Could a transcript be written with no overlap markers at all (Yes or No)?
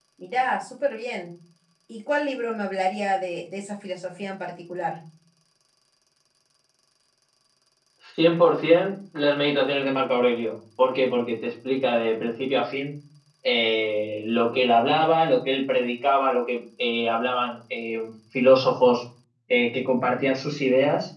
Yes